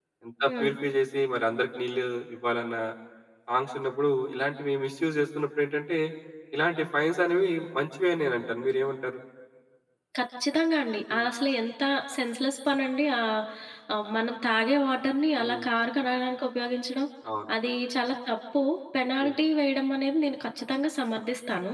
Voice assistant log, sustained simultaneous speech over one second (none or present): none